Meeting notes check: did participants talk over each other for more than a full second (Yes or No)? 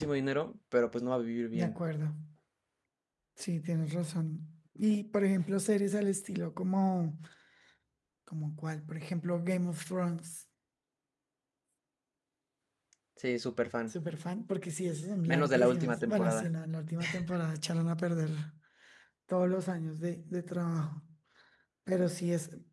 Yes